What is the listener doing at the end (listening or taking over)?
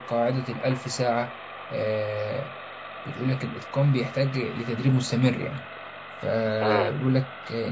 listening